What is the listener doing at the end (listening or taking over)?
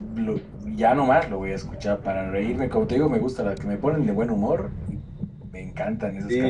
taking over